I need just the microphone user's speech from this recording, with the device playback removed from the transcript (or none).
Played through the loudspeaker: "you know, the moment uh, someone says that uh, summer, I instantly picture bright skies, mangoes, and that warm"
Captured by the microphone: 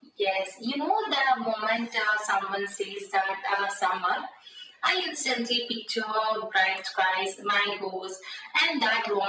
none